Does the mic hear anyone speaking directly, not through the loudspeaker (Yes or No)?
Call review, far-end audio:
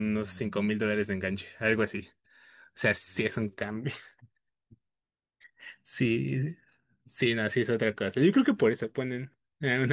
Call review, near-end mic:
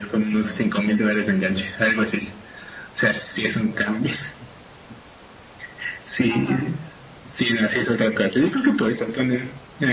Yes